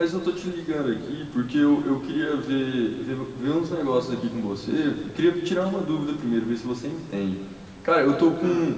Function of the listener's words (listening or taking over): listening